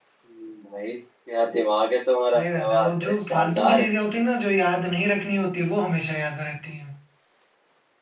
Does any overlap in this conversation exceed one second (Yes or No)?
Yes